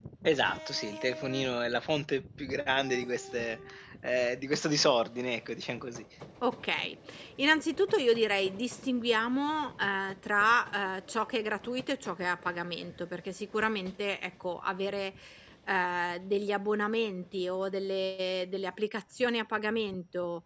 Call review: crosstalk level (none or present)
none